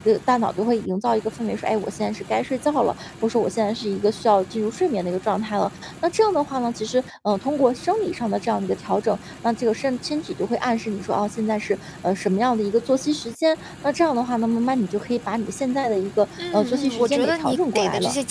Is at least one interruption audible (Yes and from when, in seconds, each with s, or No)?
Yes, from 16.4 s